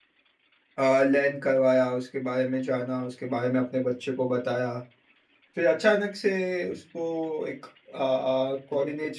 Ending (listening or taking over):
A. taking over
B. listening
B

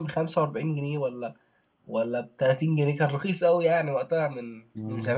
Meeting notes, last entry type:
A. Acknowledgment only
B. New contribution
B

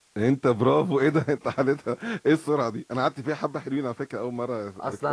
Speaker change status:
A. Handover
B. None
A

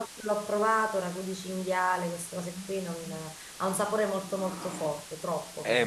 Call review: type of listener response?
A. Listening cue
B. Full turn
B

